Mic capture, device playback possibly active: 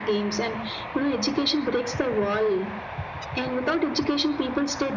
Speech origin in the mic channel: echo only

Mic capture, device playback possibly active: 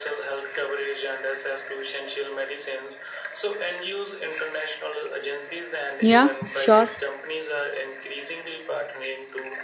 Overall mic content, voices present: both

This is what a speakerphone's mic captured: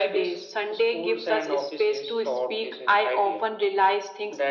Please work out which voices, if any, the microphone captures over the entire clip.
echo only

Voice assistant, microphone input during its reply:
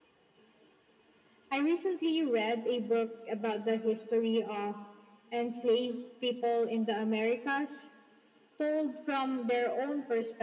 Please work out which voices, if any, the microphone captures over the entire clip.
echo only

